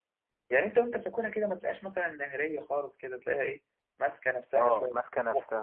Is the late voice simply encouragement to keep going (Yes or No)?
No